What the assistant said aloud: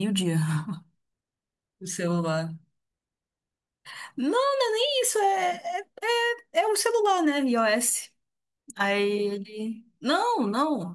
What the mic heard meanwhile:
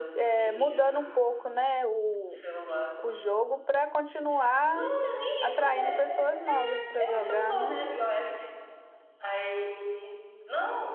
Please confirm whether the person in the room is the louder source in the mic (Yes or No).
Yes